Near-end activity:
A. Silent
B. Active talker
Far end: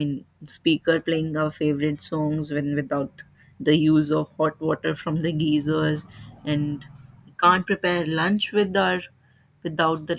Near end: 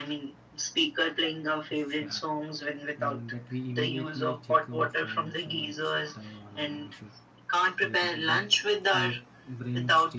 B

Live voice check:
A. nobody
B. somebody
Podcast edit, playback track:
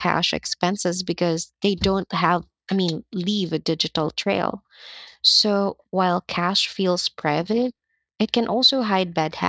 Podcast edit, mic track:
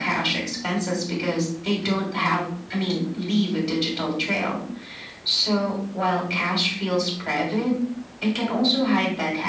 A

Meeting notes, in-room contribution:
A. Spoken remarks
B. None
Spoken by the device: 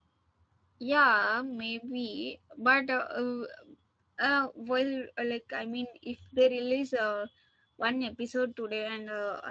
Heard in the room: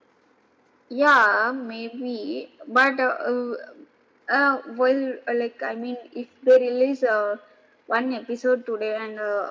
B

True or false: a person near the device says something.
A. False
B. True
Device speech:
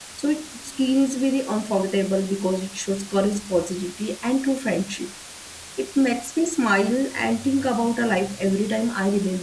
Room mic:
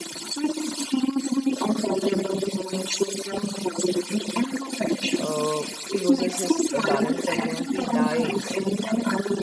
B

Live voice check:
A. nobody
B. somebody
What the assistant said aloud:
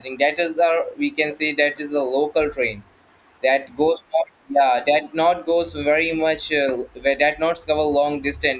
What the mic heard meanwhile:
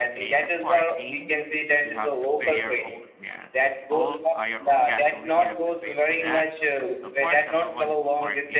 B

